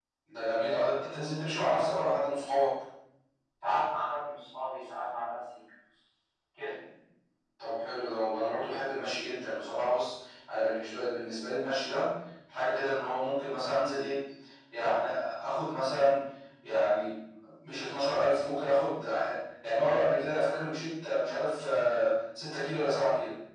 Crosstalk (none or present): none